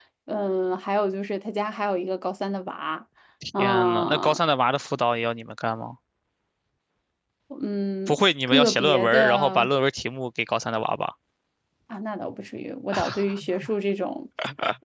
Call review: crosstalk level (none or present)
present